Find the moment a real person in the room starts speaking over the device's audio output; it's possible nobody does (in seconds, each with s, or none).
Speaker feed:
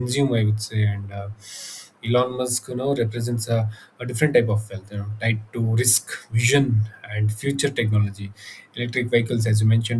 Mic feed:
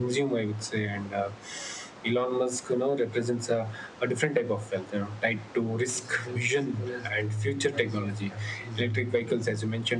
5.9 s